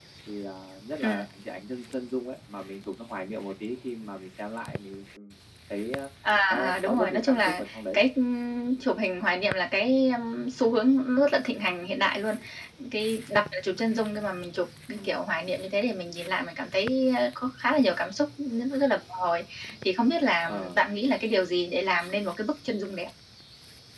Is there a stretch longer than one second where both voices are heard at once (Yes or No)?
Yes